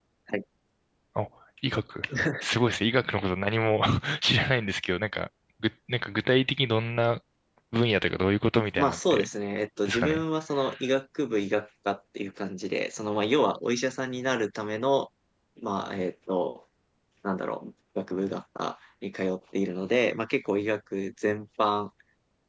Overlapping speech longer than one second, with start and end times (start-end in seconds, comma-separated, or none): none